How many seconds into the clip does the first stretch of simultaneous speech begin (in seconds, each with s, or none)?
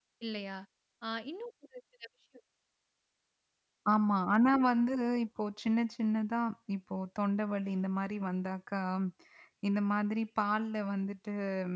none